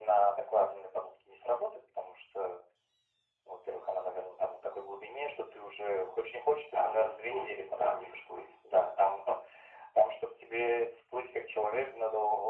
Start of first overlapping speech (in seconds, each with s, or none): 6.7 s